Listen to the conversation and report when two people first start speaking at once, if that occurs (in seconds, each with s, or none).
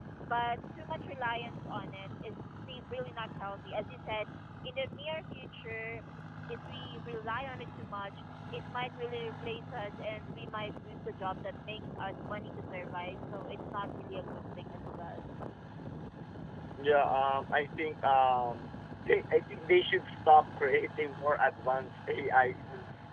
none